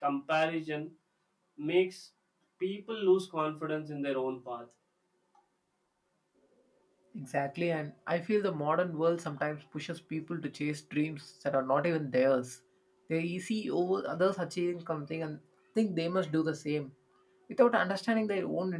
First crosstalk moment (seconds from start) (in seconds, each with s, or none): none